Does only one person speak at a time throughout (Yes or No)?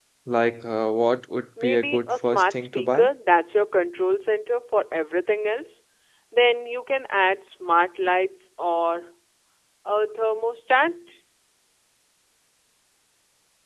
No